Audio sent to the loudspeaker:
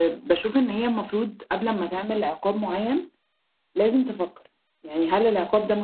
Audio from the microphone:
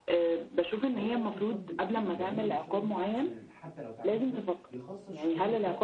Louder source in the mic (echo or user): echo